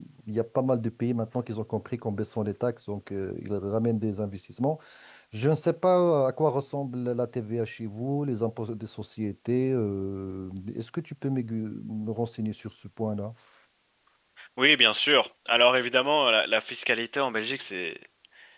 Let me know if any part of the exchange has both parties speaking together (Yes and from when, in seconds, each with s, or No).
No